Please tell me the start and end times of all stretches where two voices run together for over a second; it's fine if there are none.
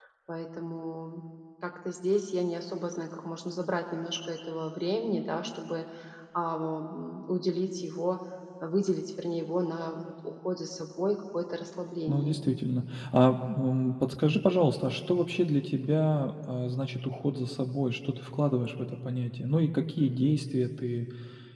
none

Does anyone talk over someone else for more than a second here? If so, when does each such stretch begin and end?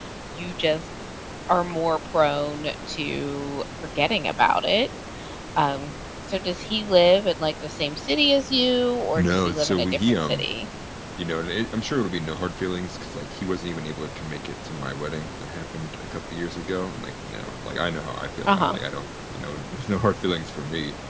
9.1-10.5

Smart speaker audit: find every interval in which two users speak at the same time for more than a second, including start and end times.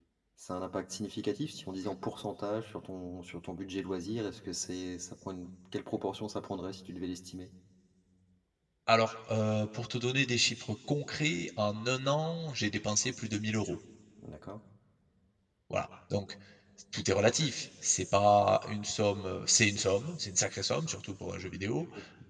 none

